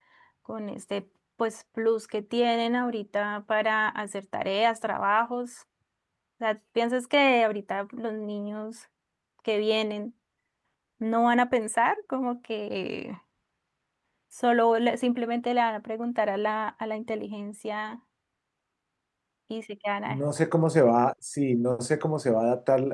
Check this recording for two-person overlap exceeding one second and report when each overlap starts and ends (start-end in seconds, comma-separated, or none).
none